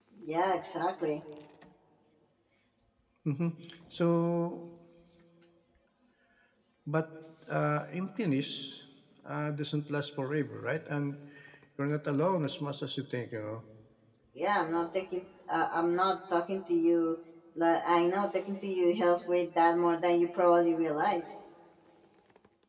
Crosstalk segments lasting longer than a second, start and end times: none

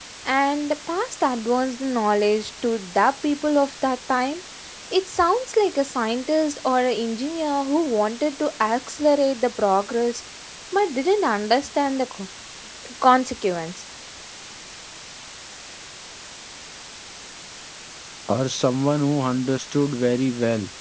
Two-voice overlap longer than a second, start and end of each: none

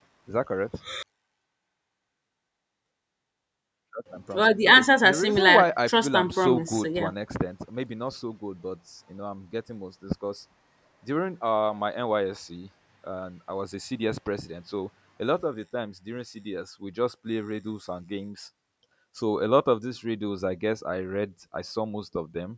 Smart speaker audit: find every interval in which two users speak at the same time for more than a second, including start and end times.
4.3-7.1

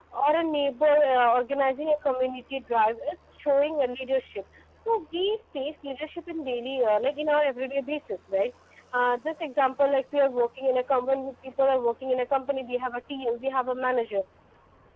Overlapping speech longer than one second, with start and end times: none

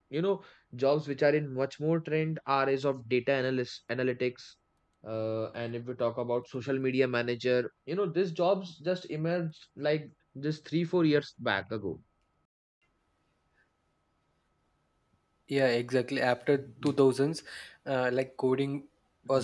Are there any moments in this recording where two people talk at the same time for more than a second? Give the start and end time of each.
none

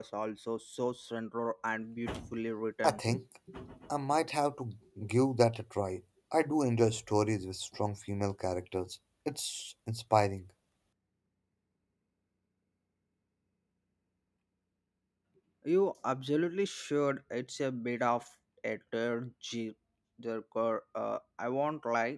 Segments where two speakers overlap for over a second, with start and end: none

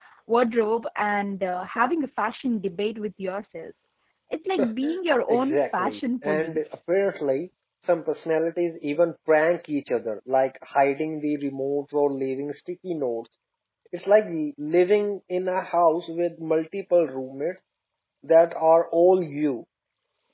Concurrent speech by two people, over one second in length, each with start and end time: 5.3-6.6

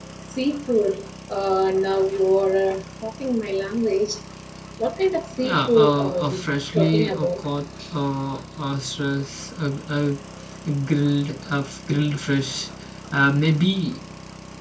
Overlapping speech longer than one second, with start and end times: 5.4-7.4

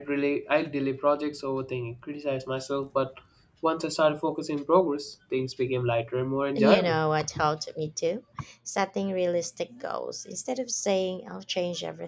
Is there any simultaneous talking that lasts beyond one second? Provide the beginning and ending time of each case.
none

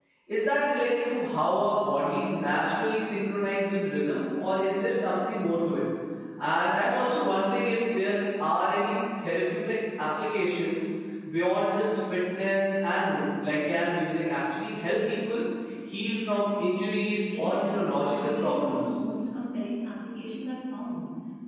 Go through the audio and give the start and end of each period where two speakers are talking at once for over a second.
17.2-18.9

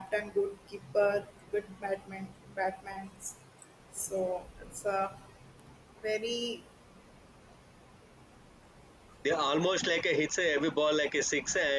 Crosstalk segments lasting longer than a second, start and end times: none

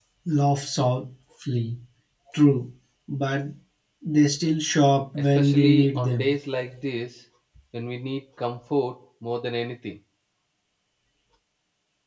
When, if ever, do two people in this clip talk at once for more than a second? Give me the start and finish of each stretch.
5.2-6.4

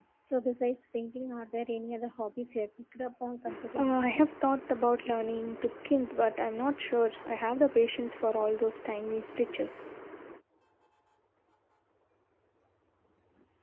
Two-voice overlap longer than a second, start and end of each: none

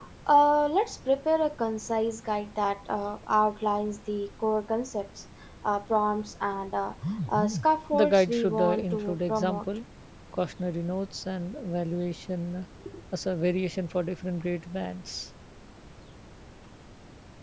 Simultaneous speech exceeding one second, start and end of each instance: 7.9-9.6

